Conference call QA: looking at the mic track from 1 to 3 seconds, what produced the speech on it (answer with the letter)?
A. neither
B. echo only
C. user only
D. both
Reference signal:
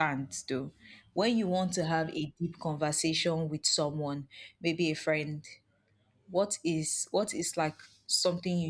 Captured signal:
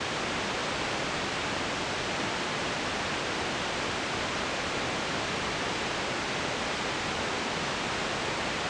A